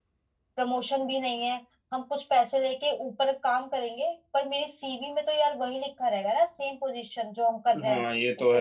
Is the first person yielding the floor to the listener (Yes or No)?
Yes